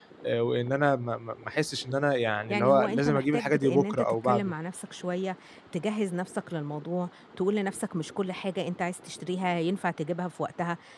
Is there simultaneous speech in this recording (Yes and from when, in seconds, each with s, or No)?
Yes, from 2.5 s